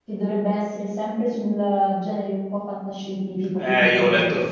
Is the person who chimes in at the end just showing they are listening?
No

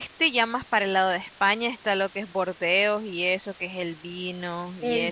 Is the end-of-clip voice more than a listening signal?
Yes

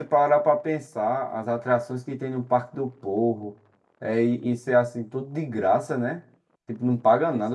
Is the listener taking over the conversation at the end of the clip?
No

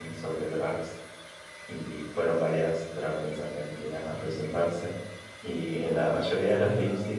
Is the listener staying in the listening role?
Yes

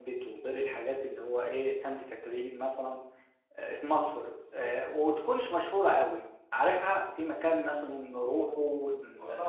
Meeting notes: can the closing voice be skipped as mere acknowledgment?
No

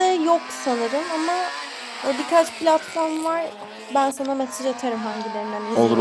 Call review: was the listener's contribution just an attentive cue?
No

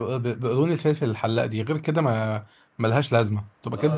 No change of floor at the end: No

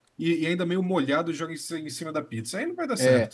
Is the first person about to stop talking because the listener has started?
Yes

